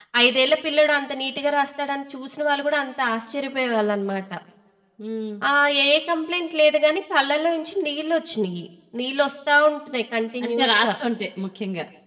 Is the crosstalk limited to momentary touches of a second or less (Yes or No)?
Yes